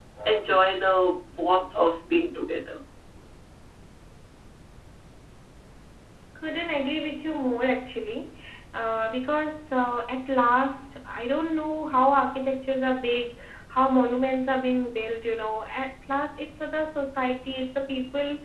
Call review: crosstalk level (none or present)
none